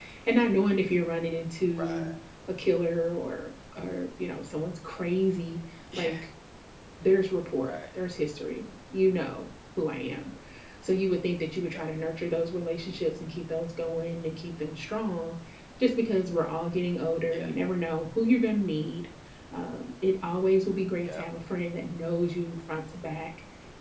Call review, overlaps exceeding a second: none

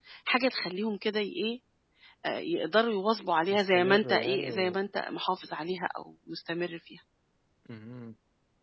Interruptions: present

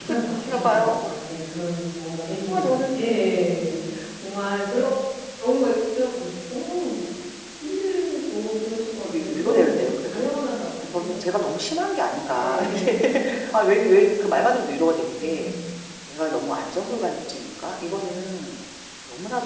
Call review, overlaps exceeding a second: present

